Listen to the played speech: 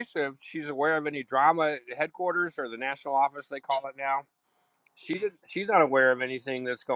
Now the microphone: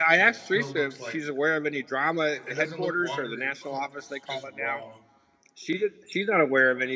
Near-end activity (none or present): present